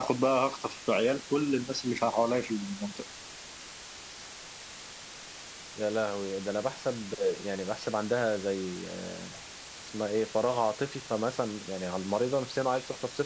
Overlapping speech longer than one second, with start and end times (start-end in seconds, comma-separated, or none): none